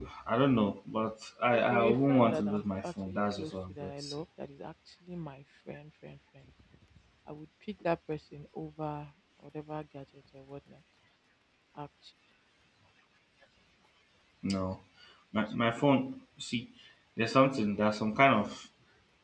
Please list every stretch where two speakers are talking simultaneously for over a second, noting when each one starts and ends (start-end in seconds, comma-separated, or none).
1.5-4.2